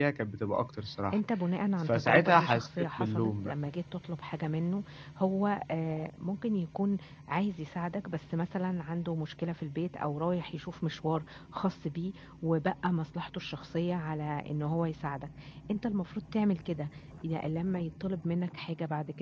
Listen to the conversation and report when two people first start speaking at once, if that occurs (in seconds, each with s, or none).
1.8 s